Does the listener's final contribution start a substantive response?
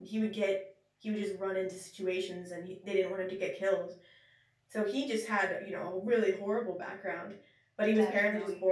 No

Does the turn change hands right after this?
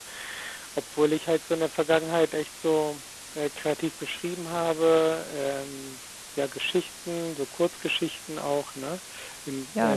Yes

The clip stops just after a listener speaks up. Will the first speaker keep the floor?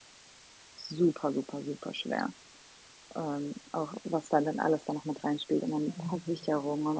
Yes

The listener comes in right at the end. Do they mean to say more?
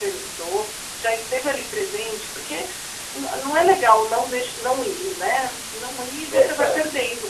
No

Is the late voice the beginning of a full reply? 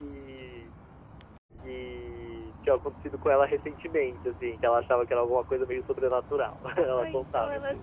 Yes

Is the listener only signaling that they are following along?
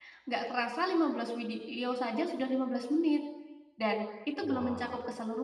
Yes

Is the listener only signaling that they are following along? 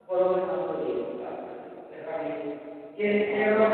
Yes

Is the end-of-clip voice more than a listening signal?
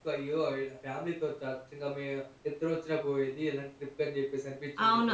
Yes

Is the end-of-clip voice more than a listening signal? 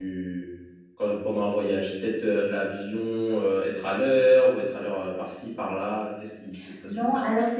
Yes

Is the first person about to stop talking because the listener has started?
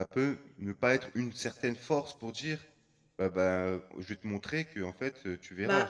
Yes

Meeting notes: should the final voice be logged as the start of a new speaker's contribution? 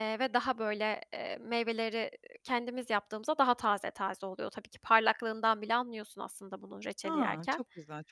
Yes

